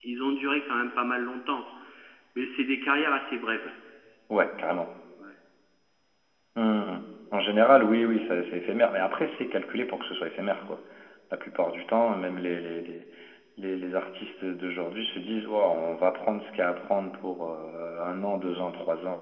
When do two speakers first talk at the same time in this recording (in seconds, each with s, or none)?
none